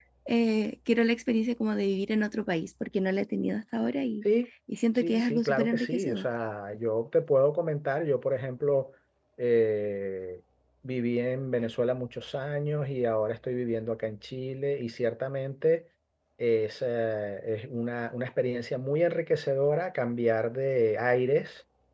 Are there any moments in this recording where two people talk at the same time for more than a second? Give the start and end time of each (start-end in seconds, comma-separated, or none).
5.0-6.3